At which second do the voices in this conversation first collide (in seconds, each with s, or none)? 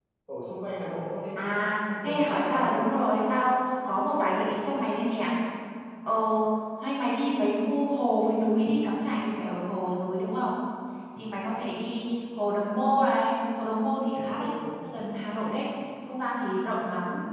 1.4 s